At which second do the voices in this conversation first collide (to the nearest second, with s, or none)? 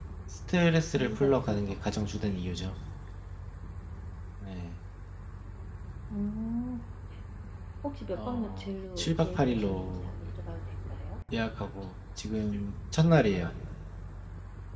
1 s